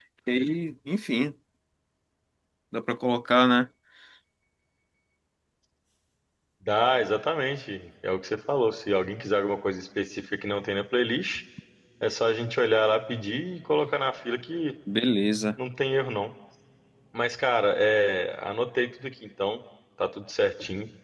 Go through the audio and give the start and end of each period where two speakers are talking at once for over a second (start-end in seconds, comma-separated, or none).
none